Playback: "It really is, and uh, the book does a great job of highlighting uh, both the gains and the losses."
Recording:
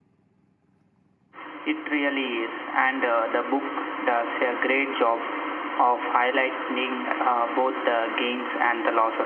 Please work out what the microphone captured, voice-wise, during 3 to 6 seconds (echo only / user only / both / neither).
echo only